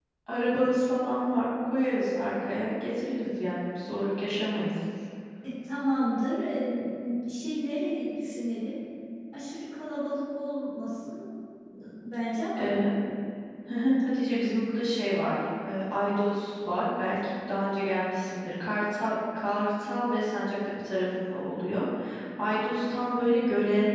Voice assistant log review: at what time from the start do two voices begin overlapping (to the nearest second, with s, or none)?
none